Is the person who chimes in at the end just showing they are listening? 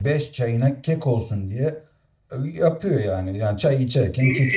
No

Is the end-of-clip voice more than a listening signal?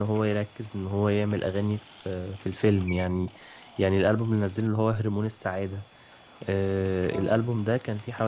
No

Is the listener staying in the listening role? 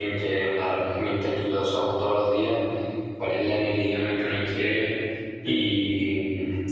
Yes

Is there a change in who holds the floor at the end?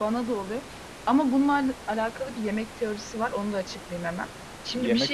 No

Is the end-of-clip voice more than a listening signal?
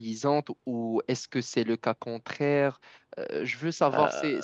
Yes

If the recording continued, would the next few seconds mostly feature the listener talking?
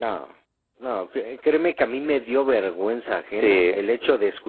No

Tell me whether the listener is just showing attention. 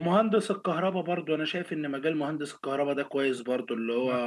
Yes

